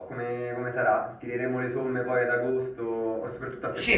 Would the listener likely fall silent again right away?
No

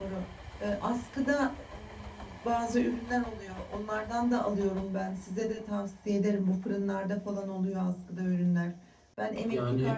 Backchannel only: Yes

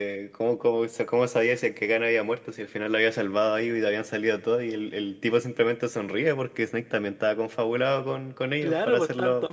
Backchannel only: No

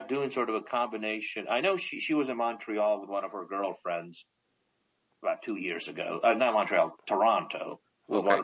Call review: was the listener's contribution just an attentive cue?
Yes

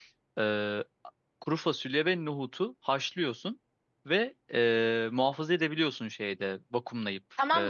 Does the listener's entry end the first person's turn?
Yes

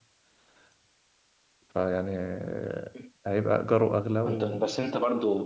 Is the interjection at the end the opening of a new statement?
Yes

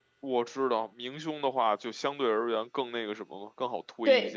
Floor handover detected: Yes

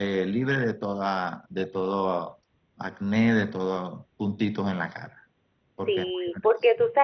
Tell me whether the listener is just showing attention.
No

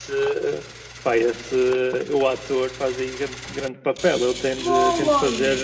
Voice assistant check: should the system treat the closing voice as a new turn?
No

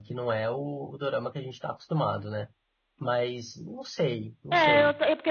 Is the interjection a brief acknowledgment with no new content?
No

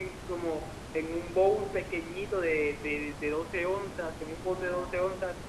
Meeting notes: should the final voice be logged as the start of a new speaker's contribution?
No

